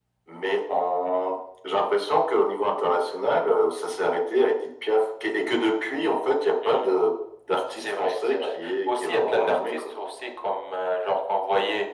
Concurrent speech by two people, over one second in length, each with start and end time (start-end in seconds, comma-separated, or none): 7.8-9.8